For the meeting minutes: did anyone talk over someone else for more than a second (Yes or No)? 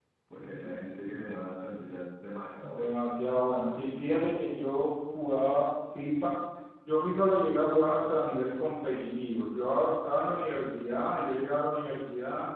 No